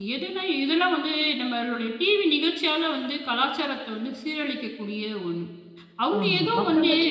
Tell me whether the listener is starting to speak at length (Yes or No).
Yes